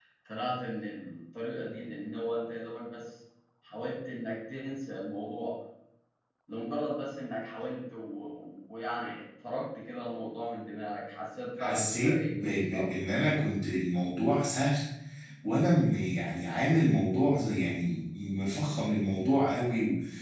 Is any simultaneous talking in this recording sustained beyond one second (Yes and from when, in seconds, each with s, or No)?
Yes, from 11.6 s